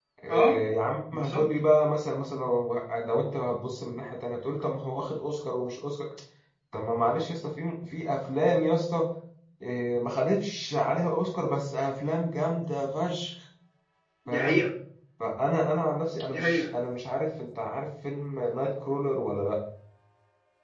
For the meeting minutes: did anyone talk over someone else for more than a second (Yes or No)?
No